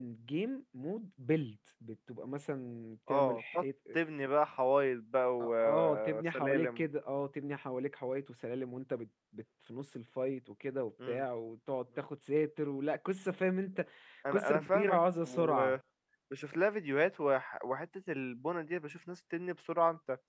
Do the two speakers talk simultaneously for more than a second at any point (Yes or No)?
Yes